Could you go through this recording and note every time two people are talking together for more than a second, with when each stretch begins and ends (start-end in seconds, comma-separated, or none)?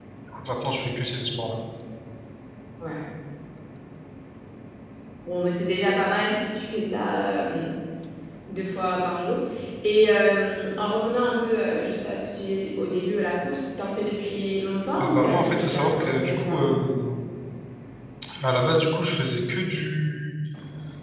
15.0-16.7